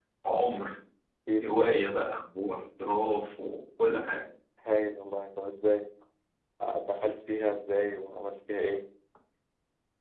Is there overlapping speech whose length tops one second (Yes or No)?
No